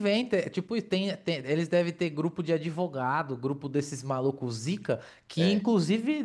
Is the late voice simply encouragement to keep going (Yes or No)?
Yes